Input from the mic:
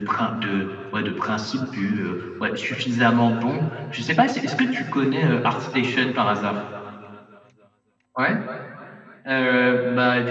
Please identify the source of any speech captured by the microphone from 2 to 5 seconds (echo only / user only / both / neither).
echo only